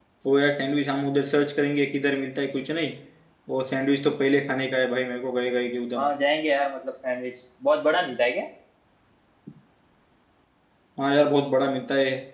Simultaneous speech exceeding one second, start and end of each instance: none

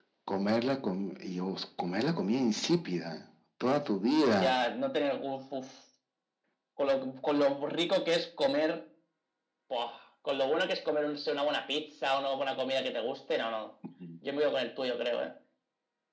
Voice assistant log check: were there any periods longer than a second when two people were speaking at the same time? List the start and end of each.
none

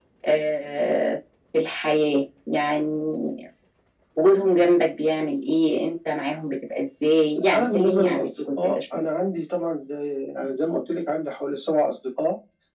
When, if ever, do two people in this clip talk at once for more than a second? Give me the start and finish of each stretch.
7.5-9.0

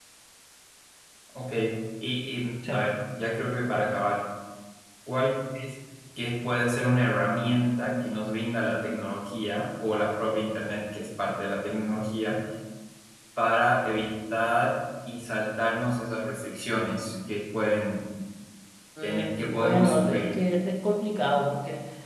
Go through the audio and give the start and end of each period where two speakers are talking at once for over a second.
19.0-20.3

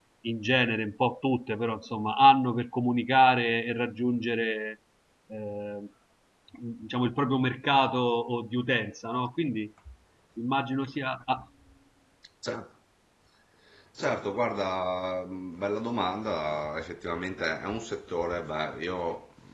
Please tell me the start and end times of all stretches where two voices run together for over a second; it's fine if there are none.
none

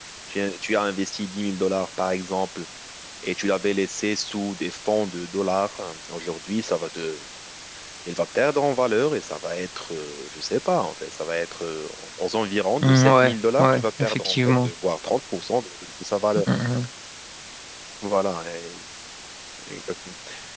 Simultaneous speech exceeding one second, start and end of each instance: 12.8-14.7

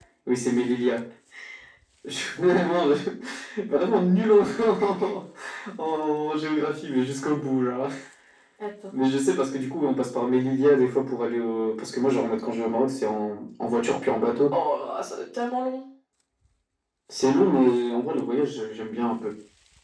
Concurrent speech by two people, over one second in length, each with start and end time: none

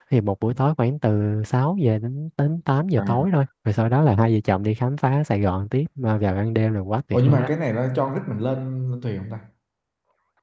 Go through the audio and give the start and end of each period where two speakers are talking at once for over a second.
none

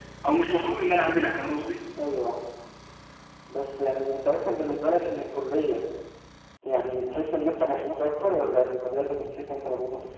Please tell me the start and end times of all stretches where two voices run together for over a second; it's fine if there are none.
none

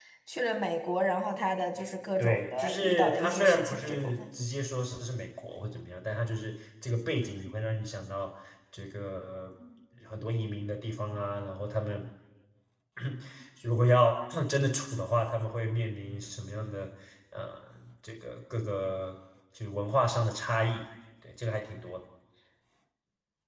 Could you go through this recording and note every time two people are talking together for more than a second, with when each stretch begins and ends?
2.2-4.2

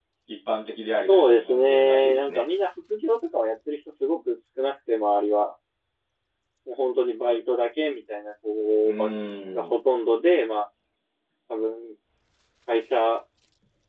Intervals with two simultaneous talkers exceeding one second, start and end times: 1.1-2.4

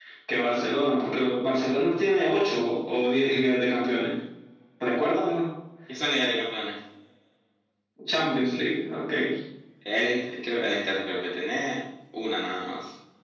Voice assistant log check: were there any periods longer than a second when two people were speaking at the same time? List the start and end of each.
none

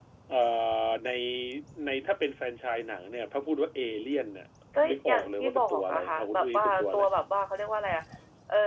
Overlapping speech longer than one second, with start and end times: 4.9-7.0

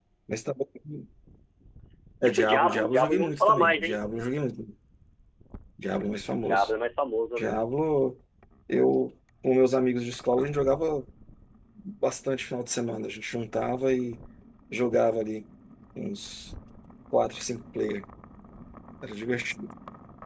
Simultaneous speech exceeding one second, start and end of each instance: 2.2-4.0

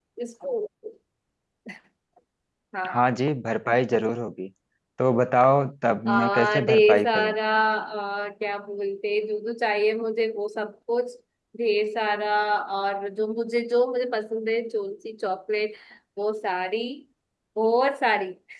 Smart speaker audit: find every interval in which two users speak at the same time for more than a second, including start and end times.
6.1-7.3

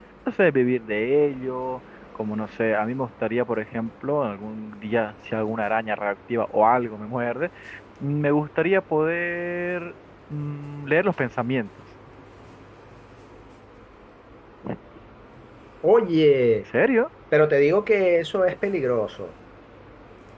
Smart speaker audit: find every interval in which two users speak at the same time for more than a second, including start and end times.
none

